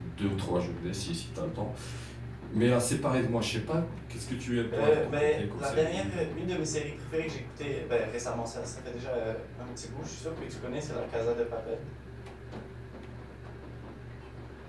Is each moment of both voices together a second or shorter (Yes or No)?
No